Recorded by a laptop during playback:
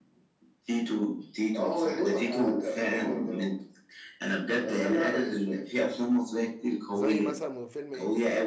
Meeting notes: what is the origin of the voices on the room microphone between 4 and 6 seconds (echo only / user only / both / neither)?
echo only